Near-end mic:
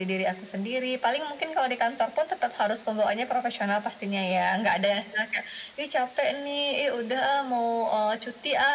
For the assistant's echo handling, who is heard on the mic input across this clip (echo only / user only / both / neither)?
echo only